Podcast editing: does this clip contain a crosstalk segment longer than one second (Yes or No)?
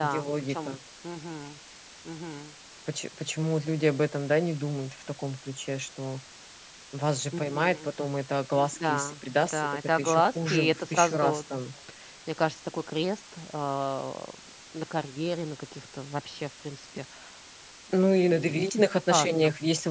Yes